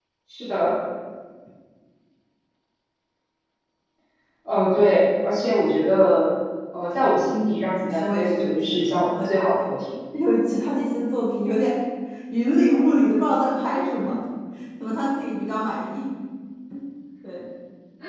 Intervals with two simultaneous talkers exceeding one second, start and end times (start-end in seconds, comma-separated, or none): 7.9-9.3